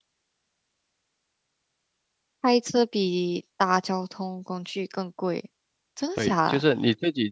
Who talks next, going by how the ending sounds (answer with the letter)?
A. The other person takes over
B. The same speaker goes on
A